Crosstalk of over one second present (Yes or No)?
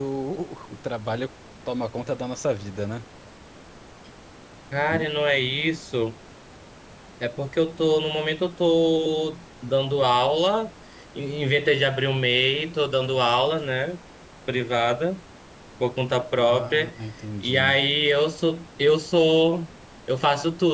No